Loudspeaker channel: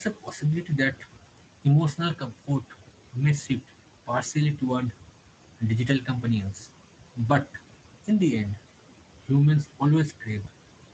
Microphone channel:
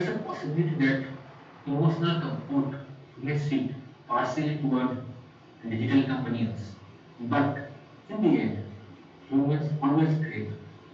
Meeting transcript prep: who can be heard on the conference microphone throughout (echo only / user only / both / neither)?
echo only